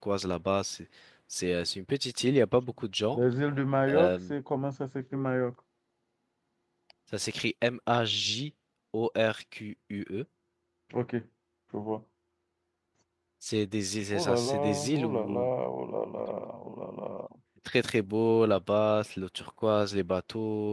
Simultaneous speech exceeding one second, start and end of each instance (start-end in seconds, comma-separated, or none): 14.1-15.5